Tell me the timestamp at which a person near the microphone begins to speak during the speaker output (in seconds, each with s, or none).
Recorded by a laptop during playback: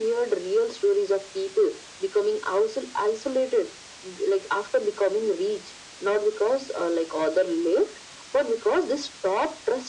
none